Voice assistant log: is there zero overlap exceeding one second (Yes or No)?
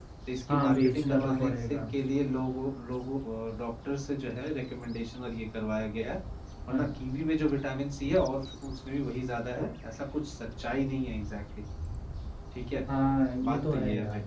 No